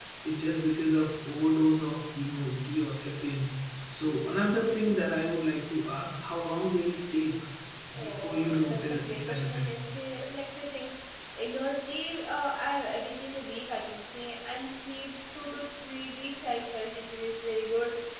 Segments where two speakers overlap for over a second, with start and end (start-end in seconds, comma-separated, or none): 8.0-9.8